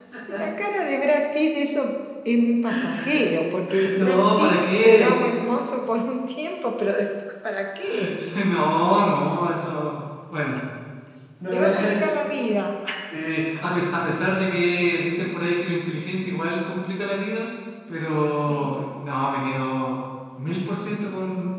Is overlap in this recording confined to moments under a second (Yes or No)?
No